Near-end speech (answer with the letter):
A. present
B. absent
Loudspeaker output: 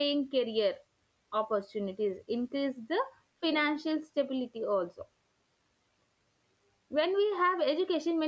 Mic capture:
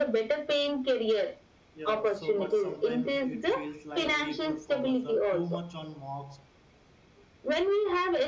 A